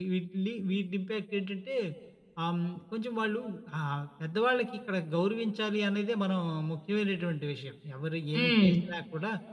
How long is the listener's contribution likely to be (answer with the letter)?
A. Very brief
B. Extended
A